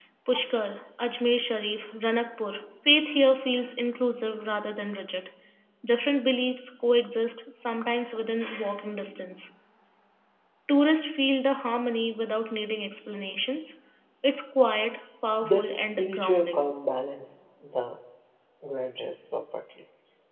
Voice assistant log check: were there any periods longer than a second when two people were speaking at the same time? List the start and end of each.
15.4-16.7

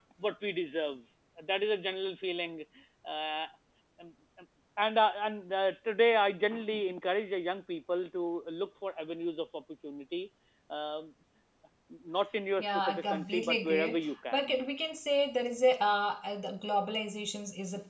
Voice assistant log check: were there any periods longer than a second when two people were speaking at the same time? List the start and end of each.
12.6-14.6

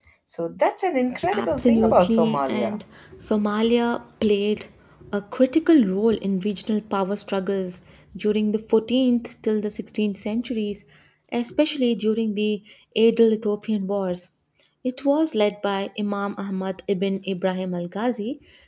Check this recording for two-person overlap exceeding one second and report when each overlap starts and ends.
1.3-2.8

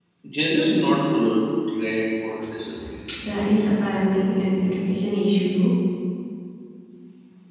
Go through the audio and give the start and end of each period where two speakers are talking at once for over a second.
none

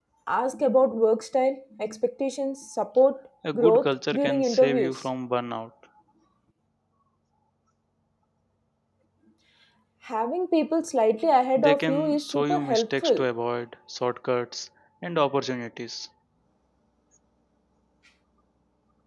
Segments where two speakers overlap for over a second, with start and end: 3.5-5.0, 11.6-13.3

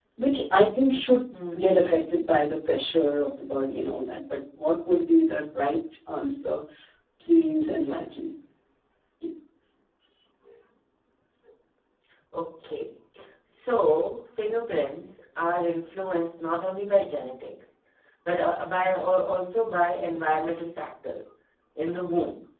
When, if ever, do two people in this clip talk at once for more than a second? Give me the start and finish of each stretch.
none

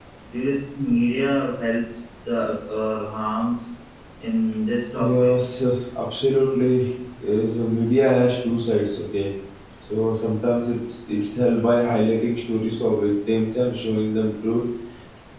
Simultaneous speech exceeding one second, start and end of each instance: none

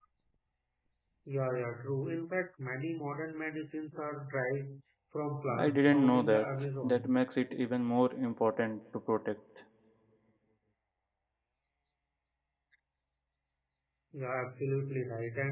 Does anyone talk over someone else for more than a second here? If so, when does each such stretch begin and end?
5.6-7.1

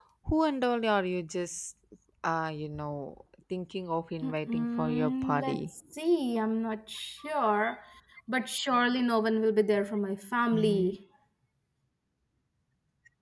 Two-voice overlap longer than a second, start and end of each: 4.2-5.6

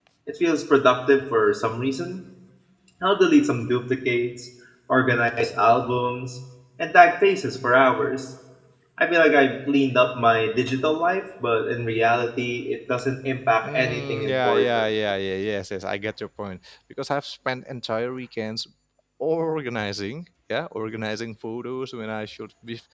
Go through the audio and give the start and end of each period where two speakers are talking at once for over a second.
13.6-14.9

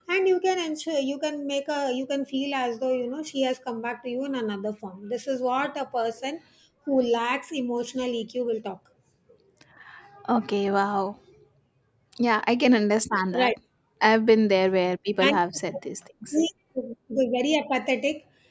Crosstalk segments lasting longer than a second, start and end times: none

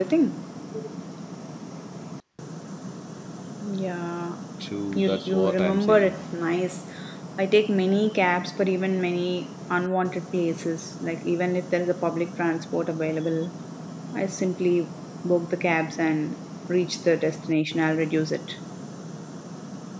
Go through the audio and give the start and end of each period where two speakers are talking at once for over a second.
4.9-6.1

